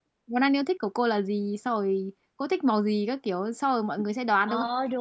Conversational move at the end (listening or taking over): taking over